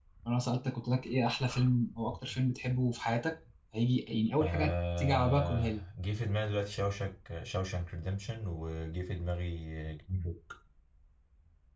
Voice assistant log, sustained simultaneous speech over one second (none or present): present